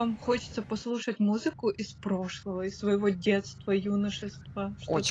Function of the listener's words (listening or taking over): taking over